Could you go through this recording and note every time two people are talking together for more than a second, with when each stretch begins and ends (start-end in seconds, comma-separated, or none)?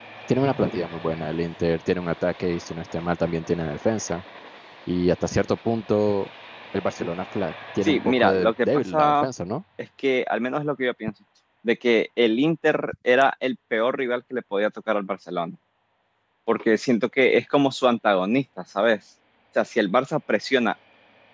7.8-9.3